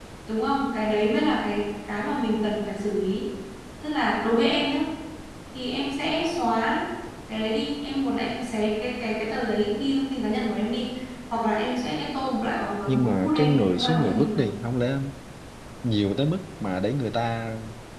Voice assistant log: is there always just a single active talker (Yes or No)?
No